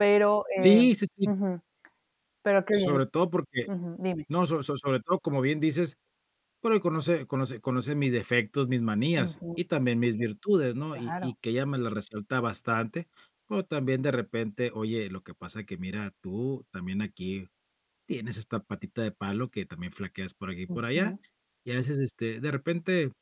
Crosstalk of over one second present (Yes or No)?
No